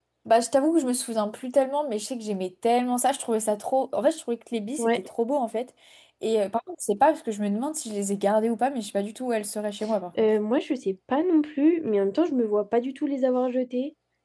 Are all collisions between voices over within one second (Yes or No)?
Yes